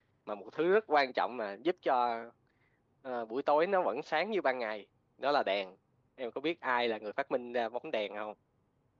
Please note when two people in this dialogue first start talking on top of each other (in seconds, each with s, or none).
none